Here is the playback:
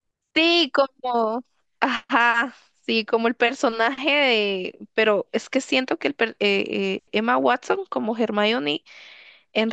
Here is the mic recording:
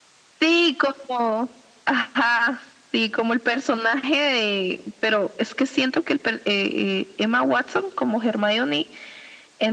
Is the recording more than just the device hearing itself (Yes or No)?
No